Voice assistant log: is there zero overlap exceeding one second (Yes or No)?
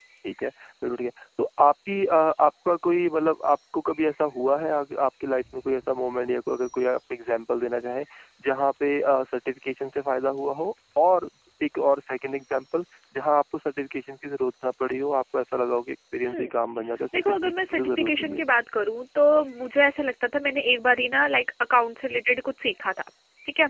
No